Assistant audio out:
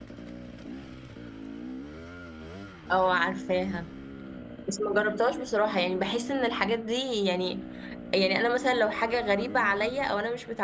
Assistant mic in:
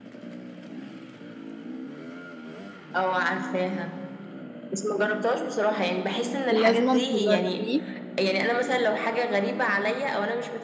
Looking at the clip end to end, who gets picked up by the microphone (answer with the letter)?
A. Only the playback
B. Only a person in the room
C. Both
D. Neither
C